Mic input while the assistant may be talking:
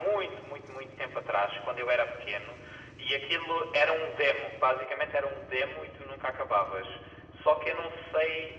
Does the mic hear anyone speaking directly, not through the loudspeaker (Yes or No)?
No